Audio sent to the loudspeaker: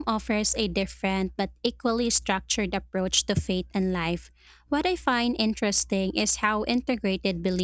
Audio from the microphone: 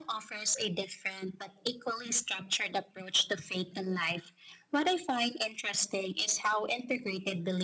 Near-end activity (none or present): none